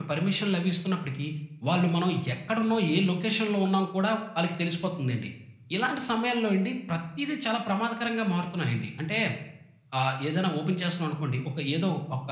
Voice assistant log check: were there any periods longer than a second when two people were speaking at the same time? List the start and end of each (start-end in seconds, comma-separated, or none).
none